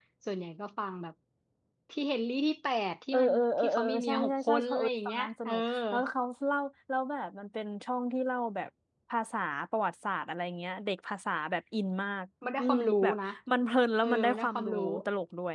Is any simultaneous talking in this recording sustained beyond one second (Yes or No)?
Yes